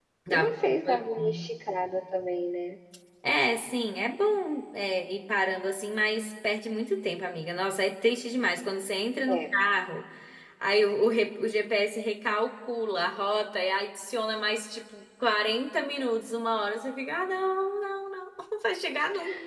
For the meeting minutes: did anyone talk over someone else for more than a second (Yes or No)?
Yes